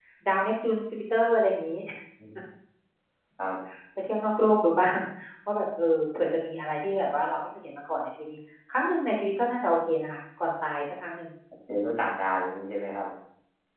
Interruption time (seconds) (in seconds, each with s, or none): none